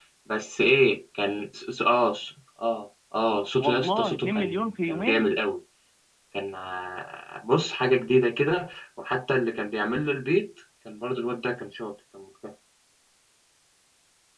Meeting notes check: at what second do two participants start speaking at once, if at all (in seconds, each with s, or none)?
3.6 s